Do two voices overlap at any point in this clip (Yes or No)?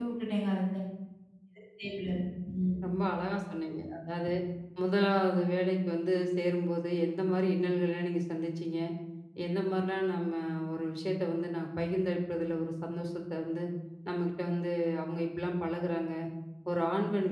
No